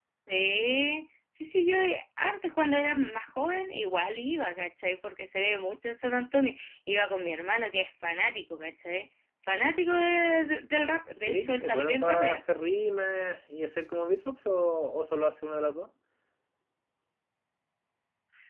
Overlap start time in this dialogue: 11 s

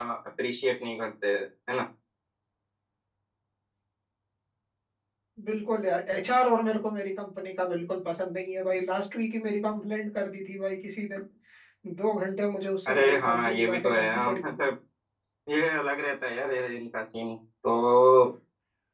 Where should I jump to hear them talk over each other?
13 s

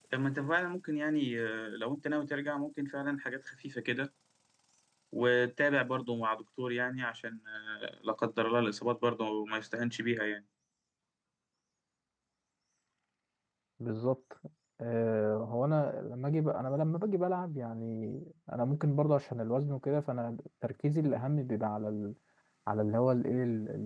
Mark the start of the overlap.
none

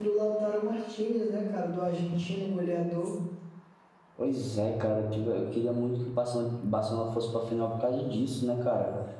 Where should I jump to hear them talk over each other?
none

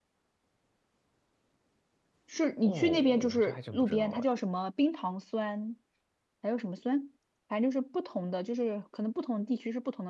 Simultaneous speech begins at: 3 s

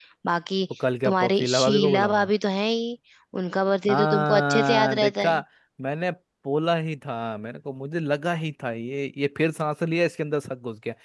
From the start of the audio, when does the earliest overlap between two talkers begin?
1 s

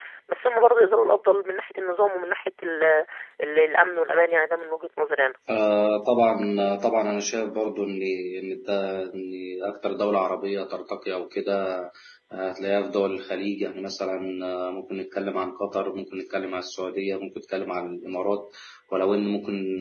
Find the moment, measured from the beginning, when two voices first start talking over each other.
none

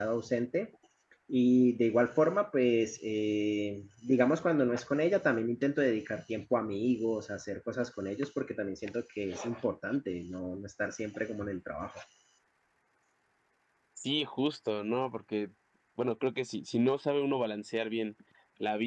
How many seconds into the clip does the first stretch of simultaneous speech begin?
none

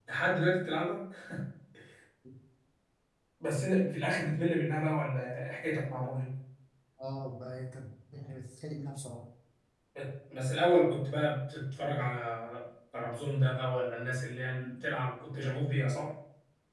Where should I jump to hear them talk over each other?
none

